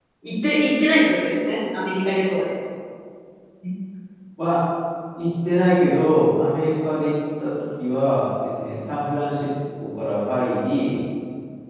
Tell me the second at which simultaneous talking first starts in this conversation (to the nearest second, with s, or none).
none